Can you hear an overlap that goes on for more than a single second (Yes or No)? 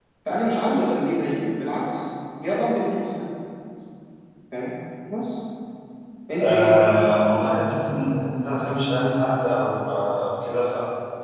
No